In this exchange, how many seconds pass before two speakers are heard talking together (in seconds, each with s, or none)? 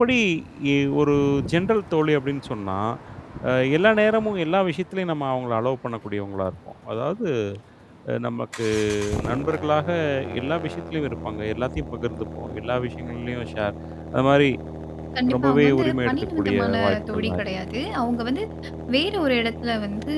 15.3 s